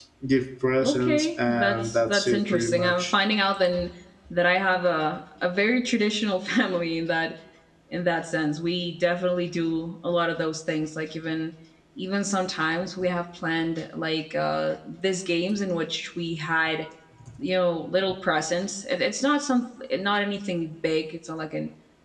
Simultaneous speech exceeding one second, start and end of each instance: 0.8-3.1

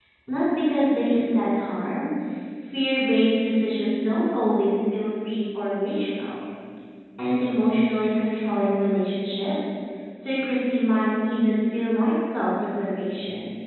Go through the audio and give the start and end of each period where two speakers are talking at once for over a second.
none

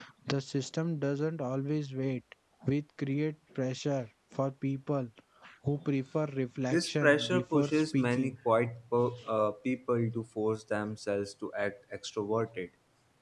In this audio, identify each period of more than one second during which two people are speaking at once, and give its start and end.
6.7-8.3

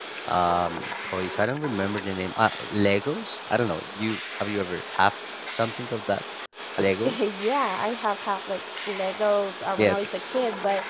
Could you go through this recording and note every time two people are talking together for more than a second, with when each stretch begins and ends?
none

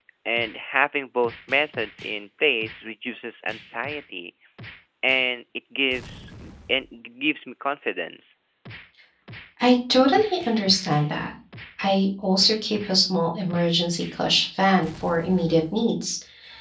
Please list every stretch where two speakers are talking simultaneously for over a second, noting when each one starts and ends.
none

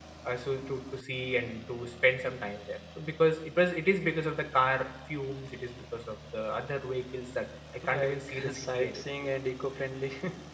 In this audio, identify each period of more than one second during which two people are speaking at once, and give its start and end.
8.0-9.4

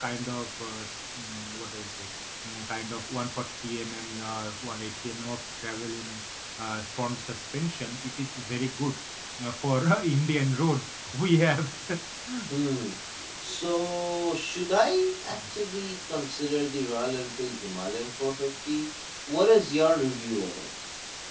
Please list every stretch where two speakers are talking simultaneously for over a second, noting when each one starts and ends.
none

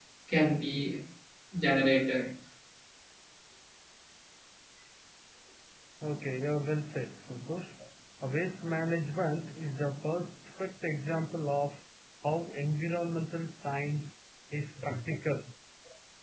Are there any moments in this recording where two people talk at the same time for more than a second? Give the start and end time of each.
none

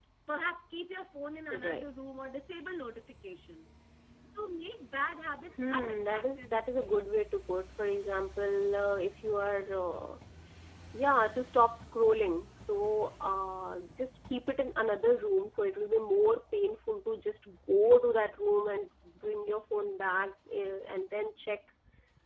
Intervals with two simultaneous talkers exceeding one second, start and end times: 5.6-6.9

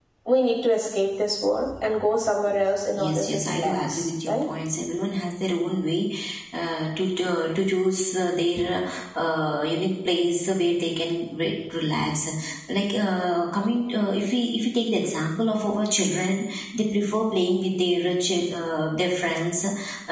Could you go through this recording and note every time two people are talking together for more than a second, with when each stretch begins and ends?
3.0-4.4

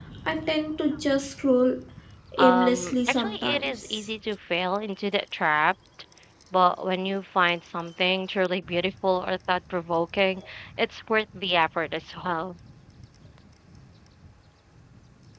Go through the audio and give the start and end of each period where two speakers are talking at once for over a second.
2.4-4.1

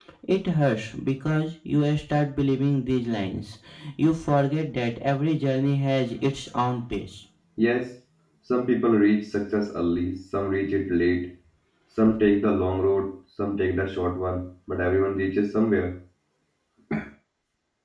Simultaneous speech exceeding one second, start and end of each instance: none

